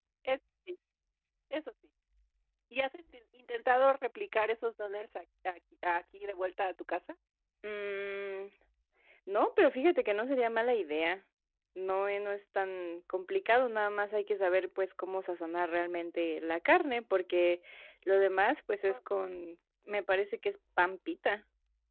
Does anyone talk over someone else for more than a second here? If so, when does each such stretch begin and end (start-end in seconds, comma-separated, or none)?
none